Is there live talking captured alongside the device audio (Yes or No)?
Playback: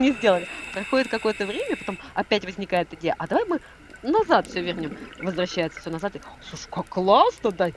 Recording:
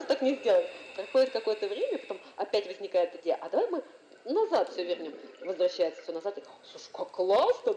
No